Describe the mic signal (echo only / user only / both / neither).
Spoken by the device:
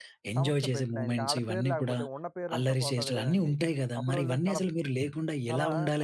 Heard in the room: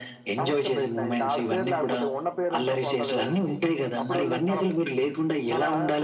echo only